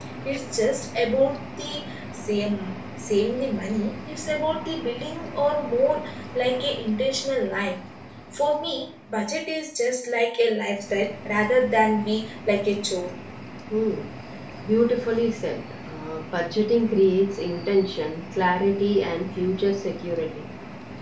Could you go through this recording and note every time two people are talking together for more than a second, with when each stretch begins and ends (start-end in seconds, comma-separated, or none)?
none